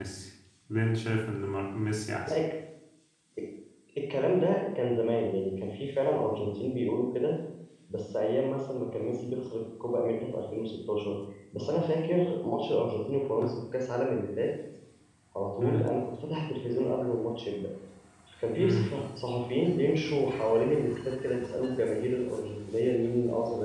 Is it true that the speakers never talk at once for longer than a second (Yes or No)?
Yes